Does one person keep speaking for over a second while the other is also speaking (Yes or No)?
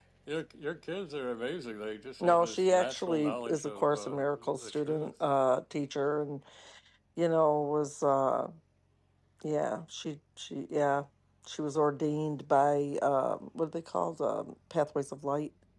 Yes